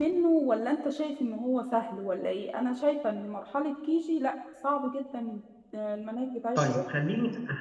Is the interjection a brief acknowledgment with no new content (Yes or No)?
No